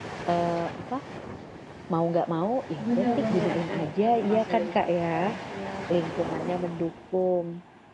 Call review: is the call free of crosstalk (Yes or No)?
No